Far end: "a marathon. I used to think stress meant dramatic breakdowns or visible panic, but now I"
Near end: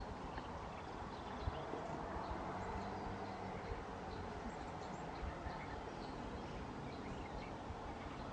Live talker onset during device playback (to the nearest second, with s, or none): none